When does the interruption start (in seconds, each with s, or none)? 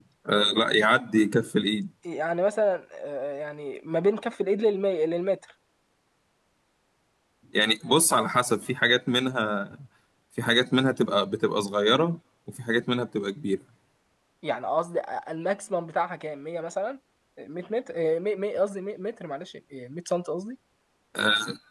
none